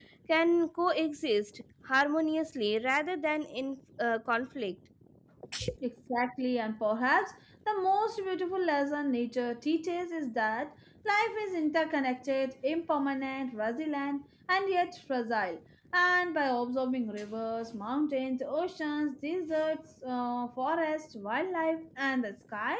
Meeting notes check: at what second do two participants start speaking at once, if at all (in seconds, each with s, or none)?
none